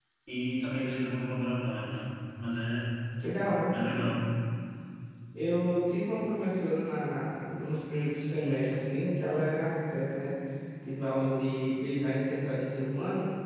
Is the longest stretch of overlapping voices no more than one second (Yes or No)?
Yes